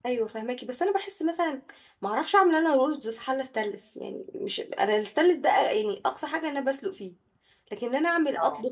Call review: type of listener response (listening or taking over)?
listening